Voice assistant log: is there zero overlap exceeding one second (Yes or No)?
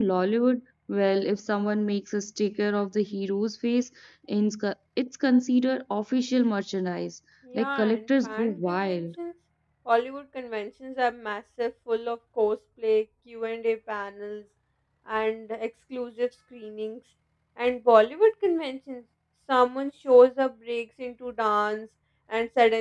No